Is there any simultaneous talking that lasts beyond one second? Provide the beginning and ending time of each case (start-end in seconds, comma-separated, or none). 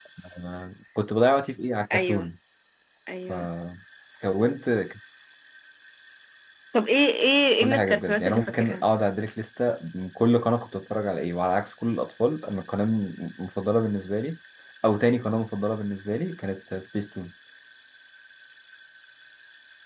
7.6-8.8